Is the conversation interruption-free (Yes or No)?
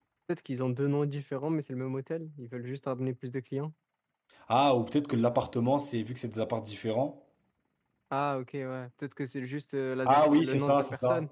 No